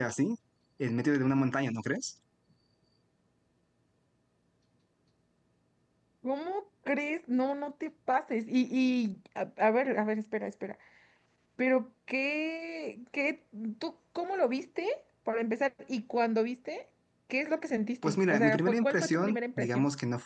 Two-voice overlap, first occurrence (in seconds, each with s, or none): 18.0 s